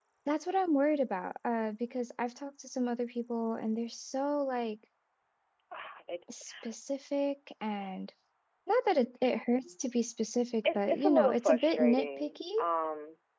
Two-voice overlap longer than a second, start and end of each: 10.6-12.4

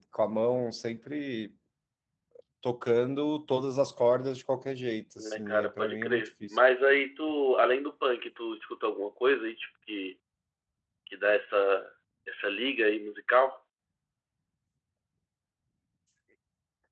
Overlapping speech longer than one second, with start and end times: 5.2-6.6

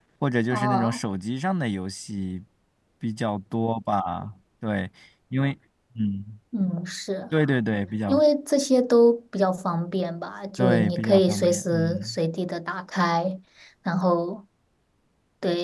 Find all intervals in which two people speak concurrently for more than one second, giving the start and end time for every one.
10.6-12.2

